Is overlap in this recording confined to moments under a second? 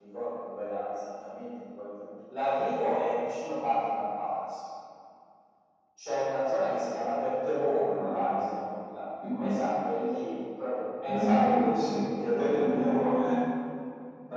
No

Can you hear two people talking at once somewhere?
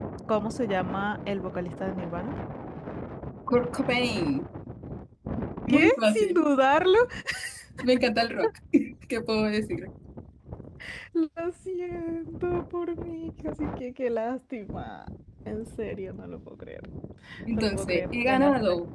Yes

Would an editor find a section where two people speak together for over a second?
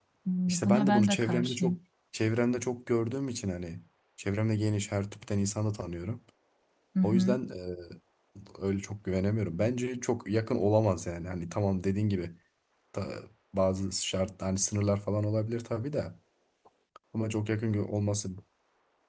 Yes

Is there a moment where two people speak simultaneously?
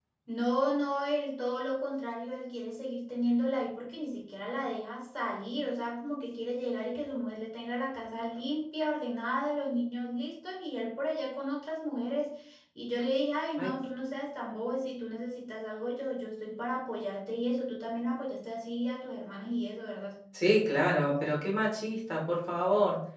No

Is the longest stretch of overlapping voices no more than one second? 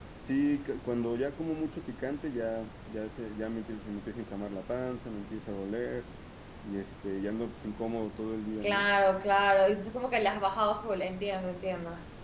Yes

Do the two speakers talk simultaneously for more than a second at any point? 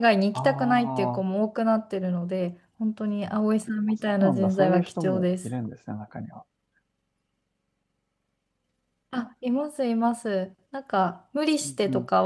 Yes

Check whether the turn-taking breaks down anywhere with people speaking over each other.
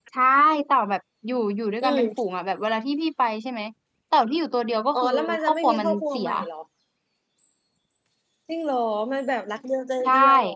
Yes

